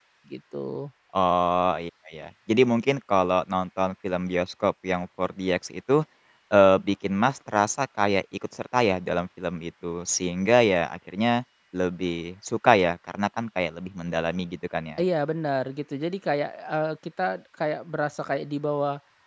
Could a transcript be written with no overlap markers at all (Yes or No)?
Yes